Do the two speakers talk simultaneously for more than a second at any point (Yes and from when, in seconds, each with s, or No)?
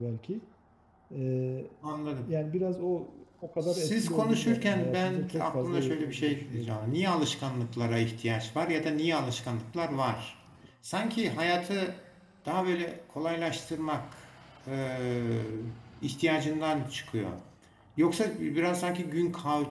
Yes, from 3.6 s